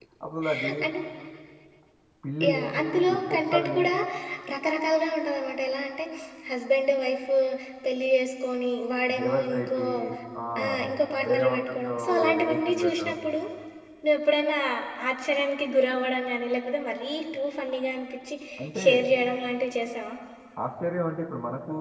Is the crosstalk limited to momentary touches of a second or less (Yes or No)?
No